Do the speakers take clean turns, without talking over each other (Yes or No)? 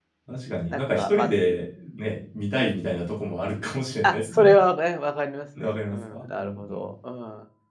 No